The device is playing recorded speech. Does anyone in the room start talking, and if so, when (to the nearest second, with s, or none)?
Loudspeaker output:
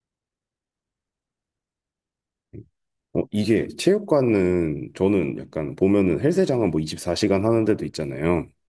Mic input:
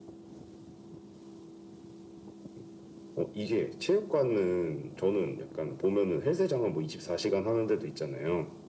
none